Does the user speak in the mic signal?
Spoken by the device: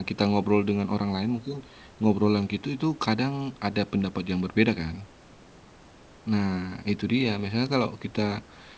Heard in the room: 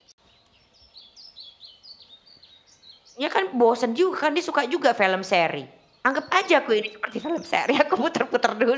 Yes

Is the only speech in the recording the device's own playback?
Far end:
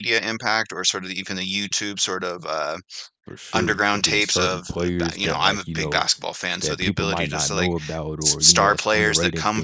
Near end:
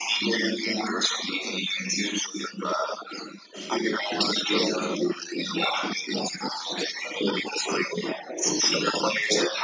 Yes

